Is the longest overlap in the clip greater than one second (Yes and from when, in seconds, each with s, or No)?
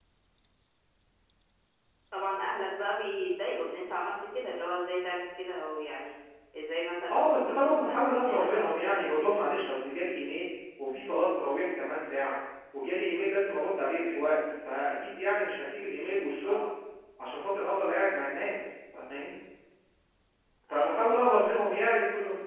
Yes, from 7.1 s